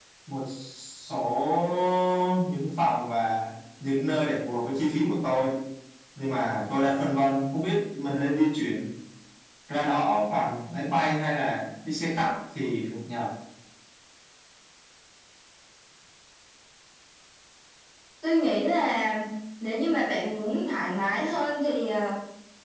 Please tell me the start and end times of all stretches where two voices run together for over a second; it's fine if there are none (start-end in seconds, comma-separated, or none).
none